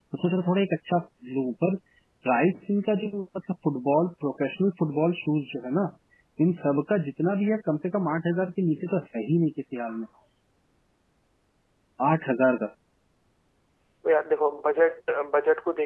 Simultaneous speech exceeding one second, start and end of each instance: none

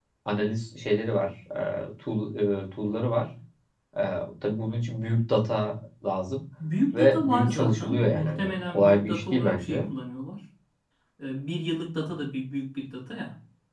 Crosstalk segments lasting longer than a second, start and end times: 6.9-9.9

